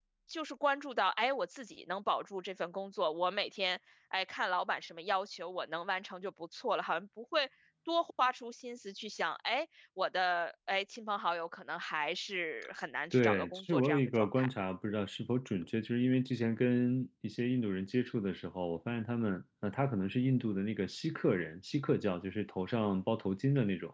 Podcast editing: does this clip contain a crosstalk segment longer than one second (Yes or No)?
Yes